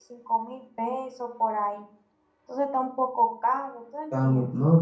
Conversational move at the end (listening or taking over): taking over